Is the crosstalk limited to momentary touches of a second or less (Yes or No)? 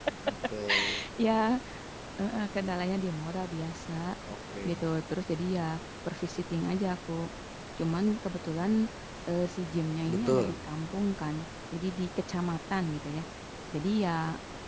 Yes